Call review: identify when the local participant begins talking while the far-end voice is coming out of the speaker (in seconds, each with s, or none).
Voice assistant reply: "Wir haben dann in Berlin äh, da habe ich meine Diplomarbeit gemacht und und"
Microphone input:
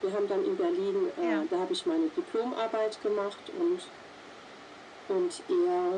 1.2 s